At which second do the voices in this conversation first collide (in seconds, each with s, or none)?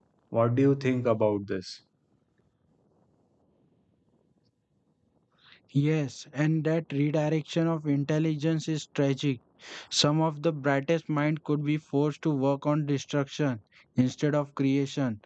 none